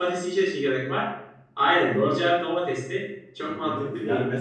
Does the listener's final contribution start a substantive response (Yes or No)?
Yes